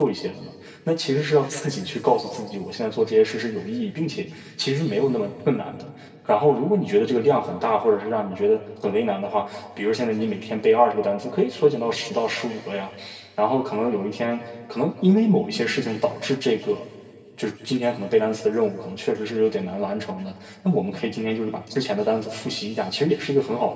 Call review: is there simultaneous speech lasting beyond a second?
No

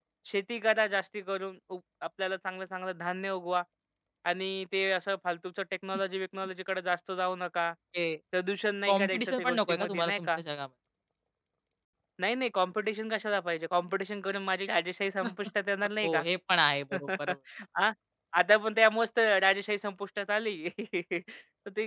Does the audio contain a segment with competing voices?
Yes, from 8.9 s

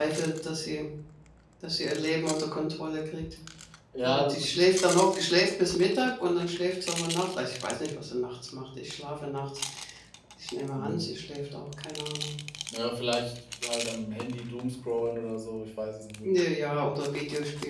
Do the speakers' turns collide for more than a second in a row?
No

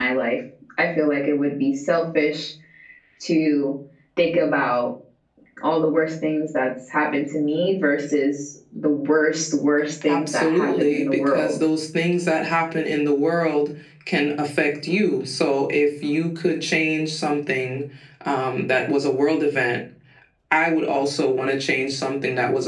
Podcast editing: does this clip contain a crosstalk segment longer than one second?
Yes, from 10.0 s

